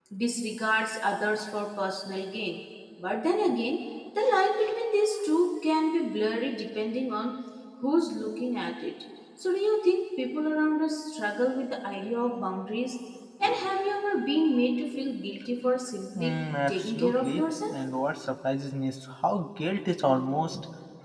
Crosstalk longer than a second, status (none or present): present